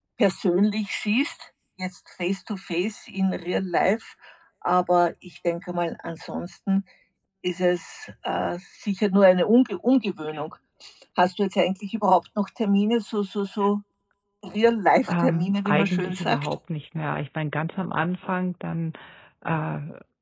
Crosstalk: present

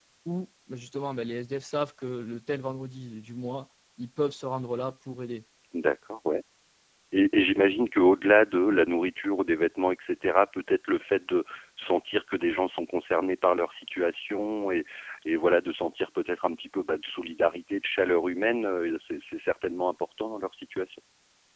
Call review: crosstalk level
none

